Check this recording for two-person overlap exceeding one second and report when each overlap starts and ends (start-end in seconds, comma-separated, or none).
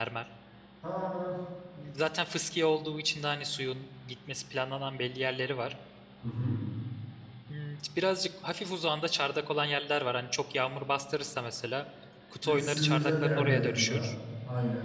12.4-14.1